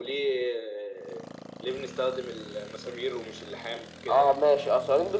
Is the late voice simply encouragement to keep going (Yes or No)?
No